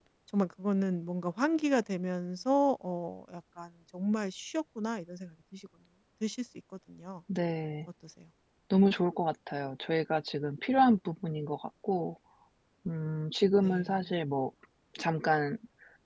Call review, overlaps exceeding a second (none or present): none